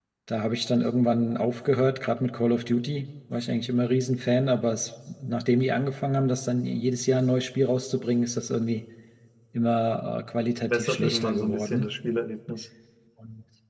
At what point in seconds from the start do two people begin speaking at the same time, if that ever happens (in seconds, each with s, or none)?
10.7 s